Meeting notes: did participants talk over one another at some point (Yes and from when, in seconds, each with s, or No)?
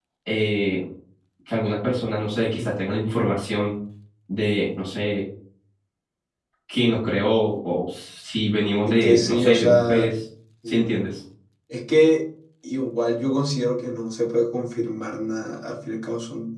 Yes, from 8.8 s